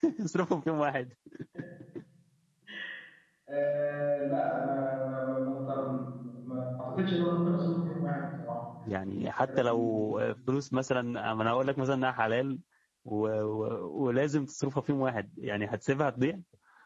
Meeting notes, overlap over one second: none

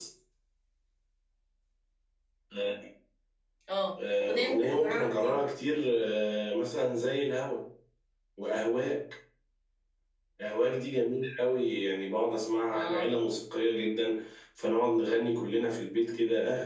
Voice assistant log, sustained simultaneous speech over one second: present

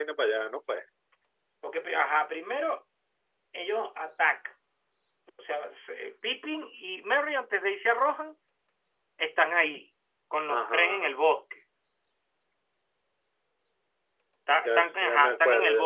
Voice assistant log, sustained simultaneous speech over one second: present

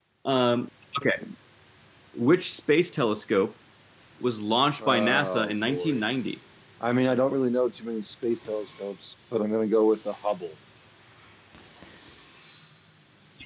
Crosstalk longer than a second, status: present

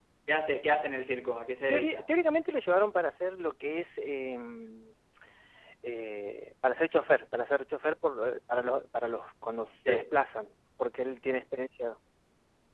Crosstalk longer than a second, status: none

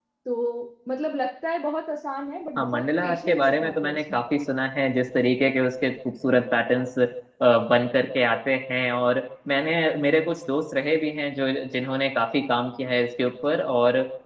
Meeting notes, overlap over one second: present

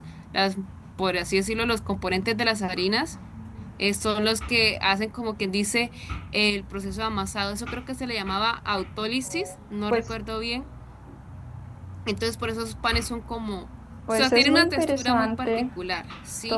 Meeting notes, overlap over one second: present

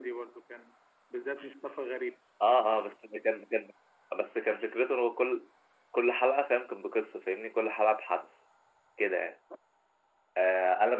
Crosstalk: none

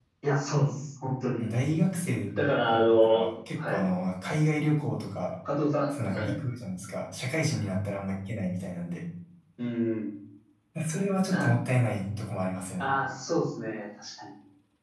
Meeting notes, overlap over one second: present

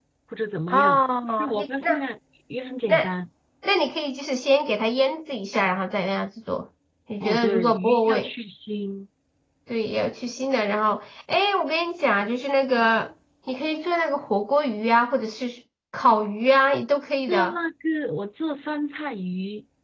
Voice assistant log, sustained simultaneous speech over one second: present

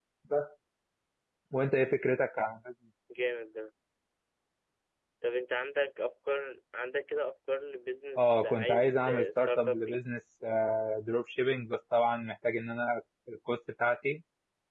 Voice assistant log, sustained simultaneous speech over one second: present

